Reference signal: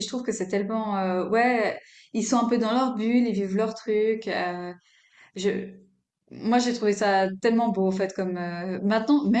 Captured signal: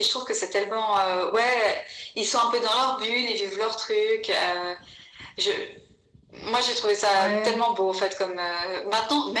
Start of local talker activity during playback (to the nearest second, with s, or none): 7 s